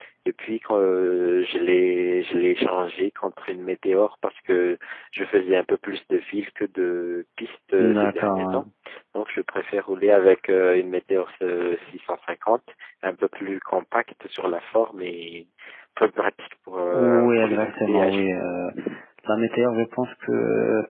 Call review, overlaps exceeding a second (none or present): present